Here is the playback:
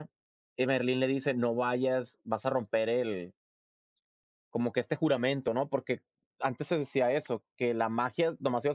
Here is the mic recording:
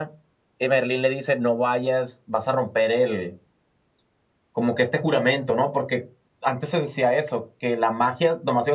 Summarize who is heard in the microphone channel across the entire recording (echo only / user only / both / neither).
echo only